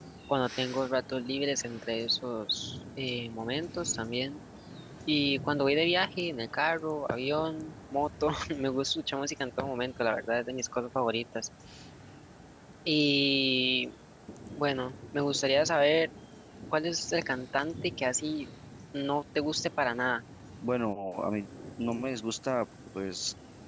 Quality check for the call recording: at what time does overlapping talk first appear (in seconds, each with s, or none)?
none